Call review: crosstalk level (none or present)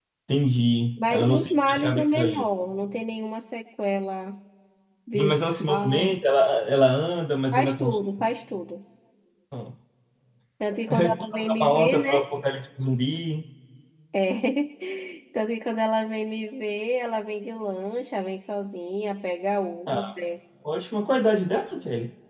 present